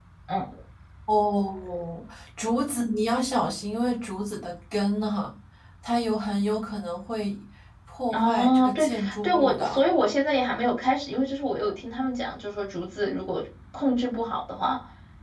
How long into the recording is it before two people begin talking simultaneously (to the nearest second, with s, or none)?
8 s